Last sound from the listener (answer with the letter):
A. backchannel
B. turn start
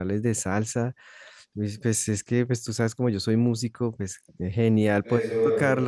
A